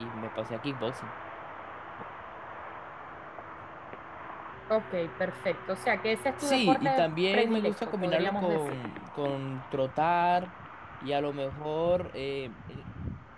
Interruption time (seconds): 6 s

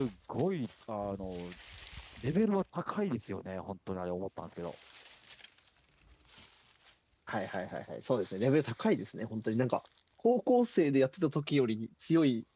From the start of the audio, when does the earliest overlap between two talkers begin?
none

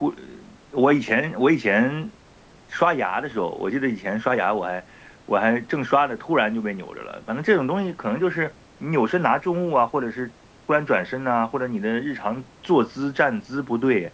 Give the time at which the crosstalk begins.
none

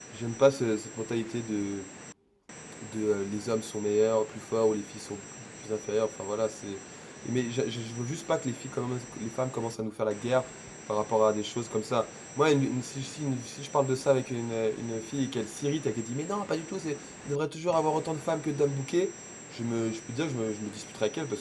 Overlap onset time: none

